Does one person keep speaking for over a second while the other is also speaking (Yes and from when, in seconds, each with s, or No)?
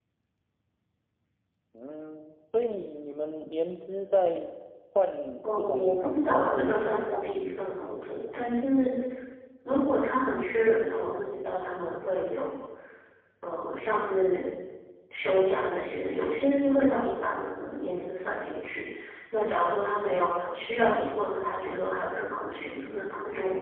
Yes, from 5.6 s